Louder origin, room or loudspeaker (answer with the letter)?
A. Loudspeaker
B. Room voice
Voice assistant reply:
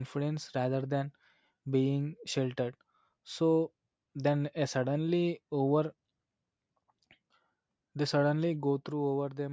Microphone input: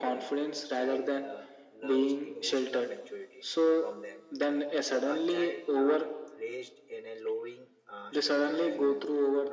A